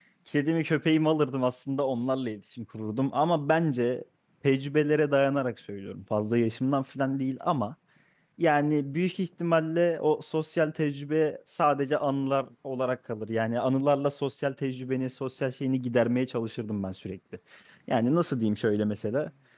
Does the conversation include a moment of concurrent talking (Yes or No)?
No